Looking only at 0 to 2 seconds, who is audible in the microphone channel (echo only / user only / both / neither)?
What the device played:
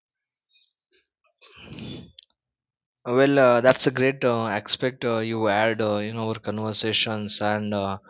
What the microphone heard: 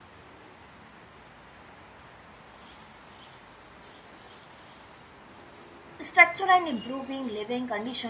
neither